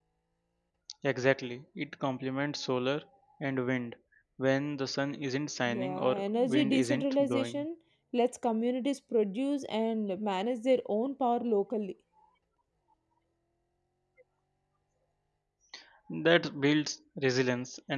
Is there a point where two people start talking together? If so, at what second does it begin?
5.7 s

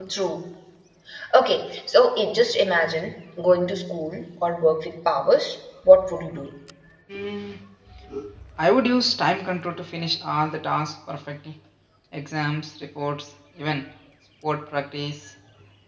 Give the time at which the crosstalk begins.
none

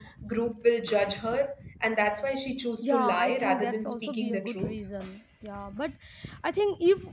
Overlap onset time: 2.8 s

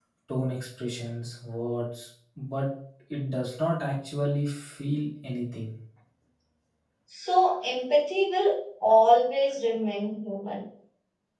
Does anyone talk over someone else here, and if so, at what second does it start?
none

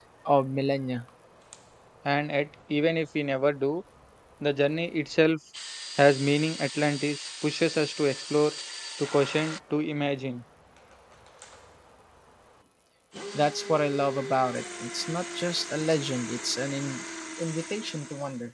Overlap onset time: none

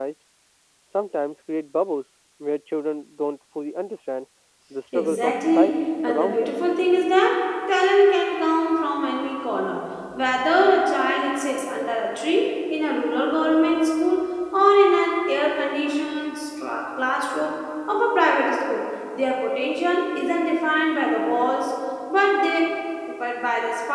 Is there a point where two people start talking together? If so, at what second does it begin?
4.9 s

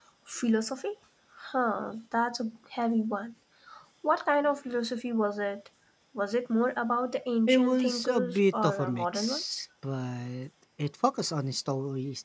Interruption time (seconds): 7.5 s

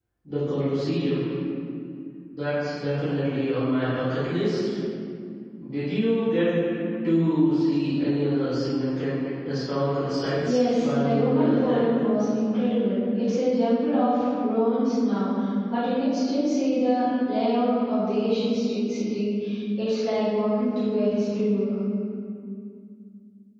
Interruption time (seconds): 10.4 s

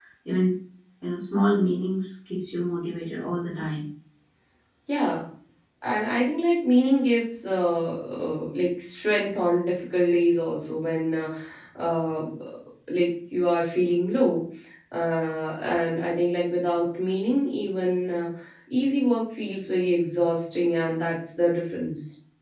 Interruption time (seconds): none

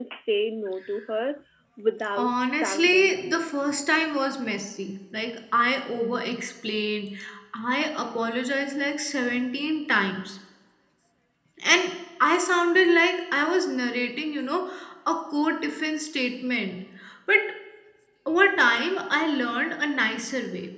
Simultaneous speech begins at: 2.1 s

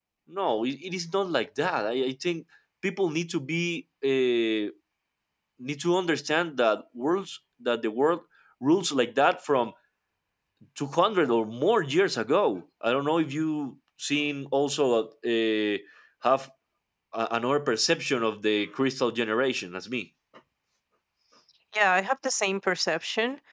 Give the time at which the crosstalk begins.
none

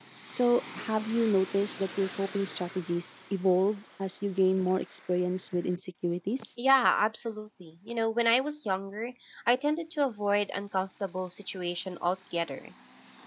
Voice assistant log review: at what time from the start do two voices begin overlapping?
none

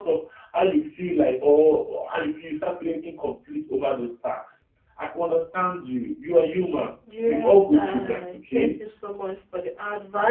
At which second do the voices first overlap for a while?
7.1 s

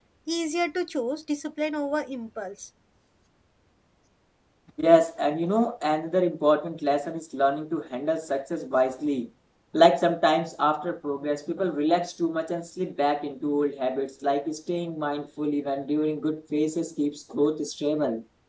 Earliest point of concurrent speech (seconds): none

